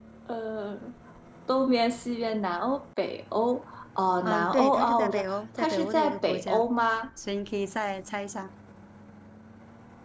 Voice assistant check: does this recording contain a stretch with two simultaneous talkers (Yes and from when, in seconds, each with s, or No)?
Yes, from 4.2 s